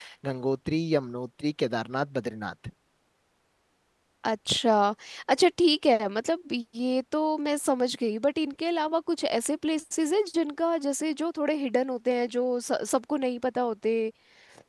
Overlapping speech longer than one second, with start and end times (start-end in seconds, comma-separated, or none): none